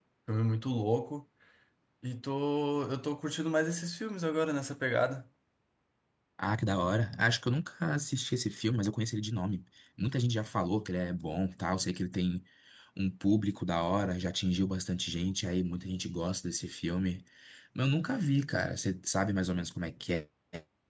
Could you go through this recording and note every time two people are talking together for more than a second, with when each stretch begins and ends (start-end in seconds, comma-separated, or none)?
none